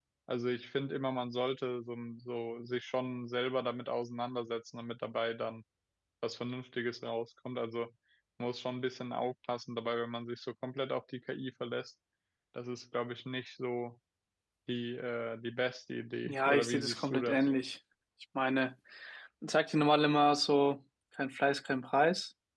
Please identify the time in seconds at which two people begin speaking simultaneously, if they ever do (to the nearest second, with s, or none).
16 s